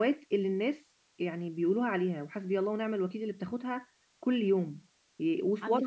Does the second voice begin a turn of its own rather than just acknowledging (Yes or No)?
No